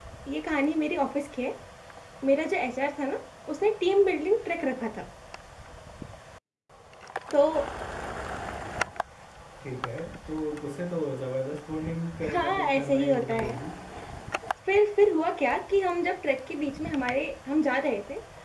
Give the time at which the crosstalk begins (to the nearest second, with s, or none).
12 s